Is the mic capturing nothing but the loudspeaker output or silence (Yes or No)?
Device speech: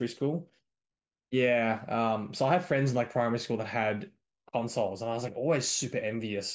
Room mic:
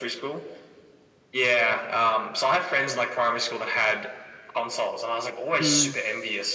No